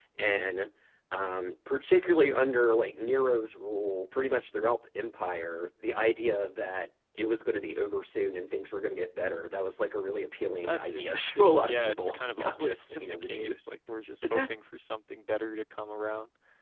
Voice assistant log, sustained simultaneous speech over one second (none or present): present